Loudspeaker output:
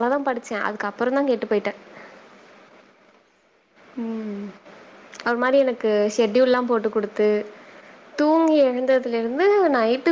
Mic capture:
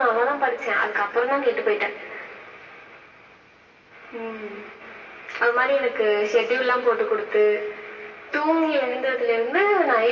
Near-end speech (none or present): none